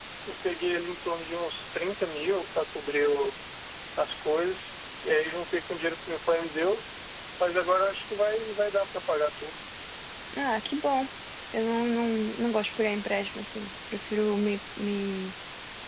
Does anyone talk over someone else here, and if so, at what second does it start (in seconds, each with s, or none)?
none